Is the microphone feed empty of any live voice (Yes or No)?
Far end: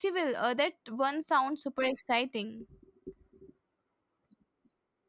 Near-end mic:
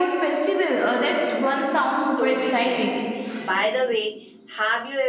No